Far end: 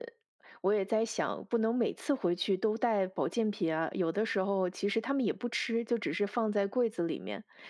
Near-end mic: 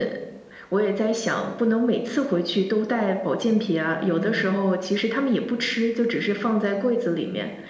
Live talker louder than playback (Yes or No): No